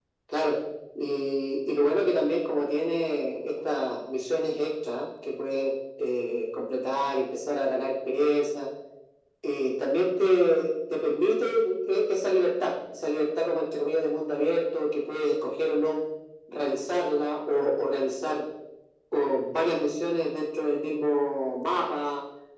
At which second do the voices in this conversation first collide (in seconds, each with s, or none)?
none